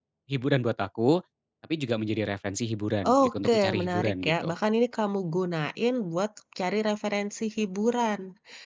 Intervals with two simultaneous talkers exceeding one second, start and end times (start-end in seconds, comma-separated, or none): 3.2-4.5